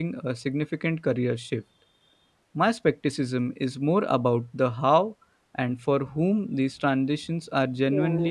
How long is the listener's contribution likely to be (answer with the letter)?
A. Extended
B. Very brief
A